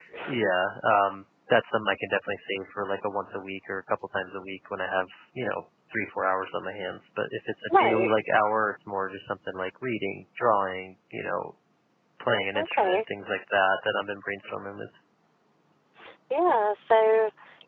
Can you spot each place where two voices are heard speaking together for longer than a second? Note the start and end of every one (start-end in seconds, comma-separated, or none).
none